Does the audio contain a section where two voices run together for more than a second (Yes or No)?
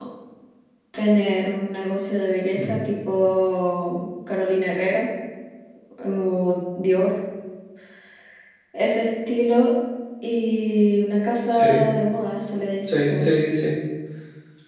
No